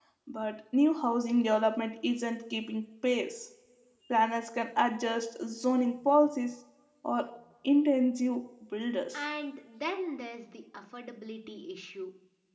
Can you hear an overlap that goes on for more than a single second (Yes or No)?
No